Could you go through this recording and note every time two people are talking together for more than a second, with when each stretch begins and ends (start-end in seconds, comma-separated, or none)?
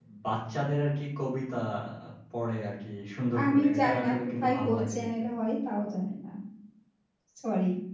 3.4-5.1